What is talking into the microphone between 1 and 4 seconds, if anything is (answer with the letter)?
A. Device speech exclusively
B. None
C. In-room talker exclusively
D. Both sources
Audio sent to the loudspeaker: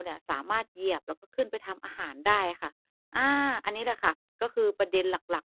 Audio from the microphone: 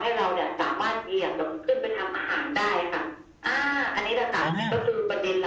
A